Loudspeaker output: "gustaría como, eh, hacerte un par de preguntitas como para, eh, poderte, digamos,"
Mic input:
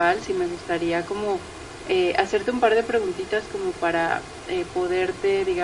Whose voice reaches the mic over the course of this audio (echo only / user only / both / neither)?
echo only